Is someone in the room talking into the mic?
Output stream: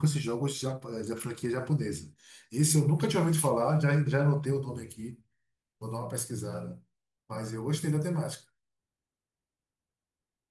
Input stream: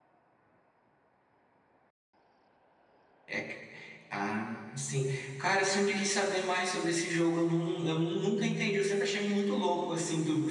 Yes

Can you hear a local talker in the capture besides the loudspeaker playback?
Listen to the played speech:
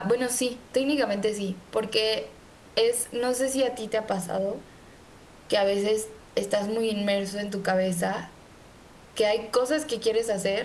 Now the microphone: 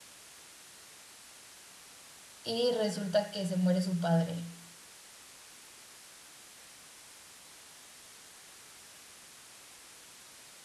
Yes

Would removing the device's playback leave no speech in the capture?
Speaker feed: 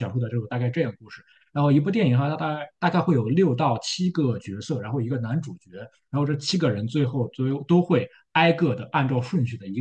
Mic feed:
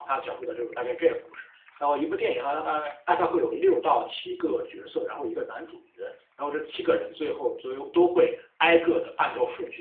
Yes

